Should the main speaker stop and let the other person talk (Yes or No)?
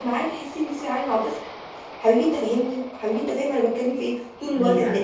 No